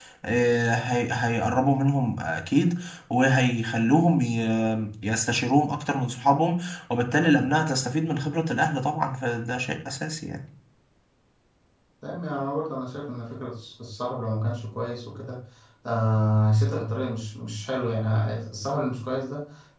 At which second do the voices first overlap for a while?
none

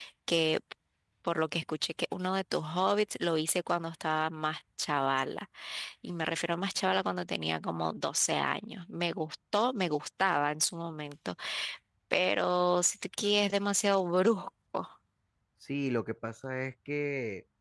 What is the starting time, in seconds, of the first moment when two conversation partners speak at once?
none

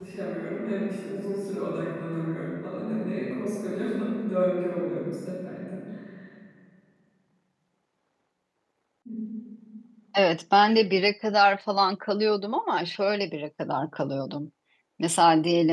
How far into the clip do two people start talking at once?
none

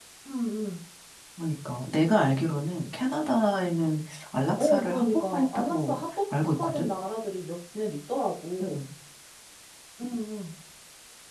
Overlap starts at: 5 s

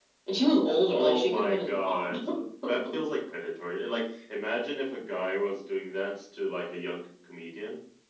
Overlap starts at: 1 s

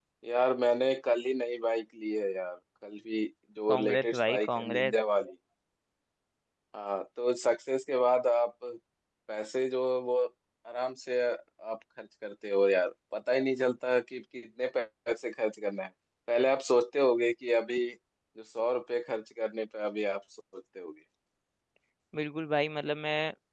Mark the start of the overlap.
4 s

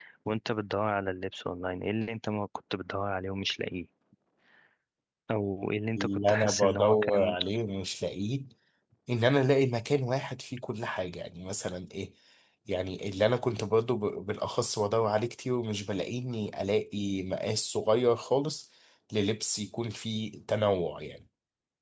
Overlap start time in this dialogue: 6 s

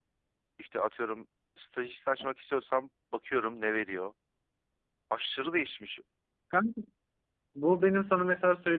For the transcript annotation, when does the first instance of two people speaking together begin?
none

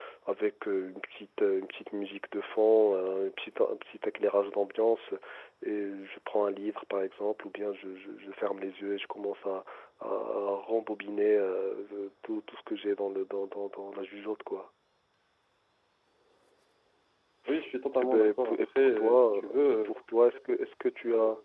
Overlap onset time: 18 s

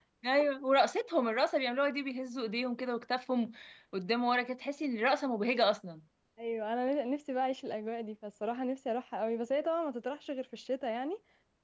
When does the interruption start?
none

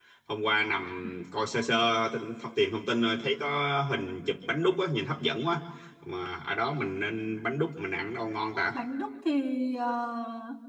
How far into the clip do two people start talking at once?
none

